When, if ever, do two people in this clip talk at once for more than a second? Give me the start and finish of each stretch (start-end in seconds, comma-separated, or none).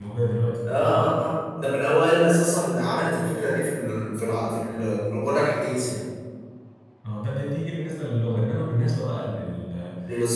none